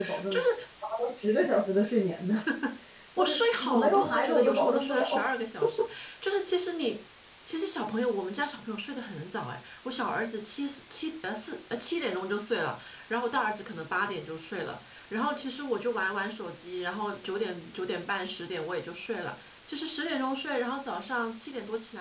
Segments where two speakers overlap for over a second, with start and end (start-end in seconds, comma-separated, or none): 3.2-5.1